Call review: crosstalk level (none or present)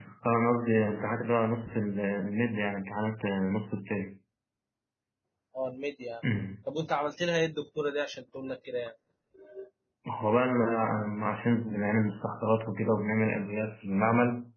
none